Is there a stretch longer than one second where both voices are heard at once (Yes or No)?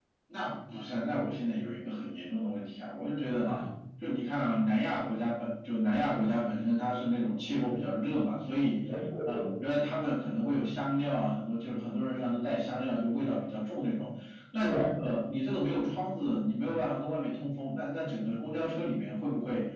No